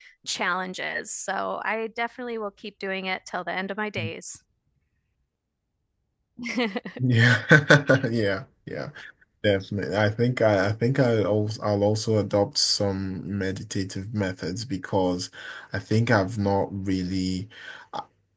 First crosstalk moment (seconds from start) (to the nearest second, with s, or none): none